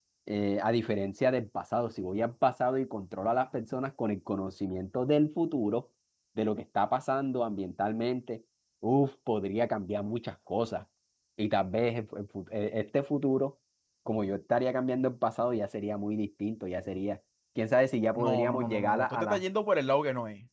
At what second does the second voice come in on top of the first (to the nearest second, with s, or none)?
18 s